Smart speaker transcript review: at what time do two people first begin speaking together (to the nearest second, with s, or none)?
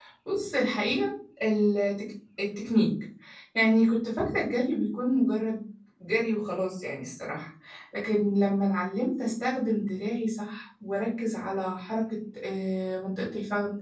none